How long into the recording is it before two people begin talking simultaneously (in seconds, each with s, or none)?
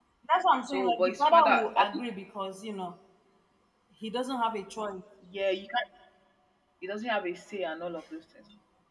0.7 s